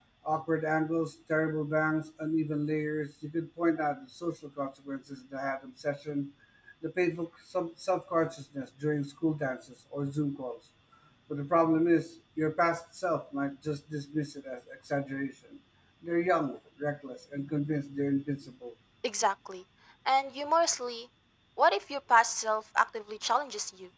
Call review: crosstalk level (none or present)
none